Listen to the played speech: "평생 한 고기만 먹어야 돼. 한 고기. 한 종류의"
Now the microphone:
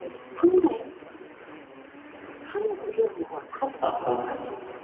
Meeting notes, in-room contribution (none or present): present